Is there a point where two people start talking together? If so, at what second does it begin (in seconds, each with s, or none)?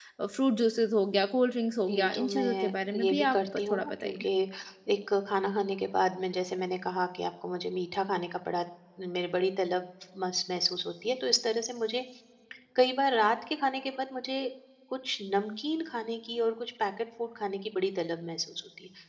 1.9 s